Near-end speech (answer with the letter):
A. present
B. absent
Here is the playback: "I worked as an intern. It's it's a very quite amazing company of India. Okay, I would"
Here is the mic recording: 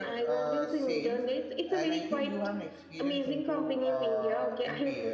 A